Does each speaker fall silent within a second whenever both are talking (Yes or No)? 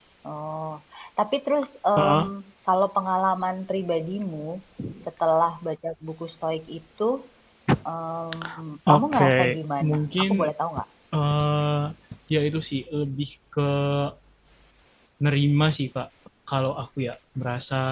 No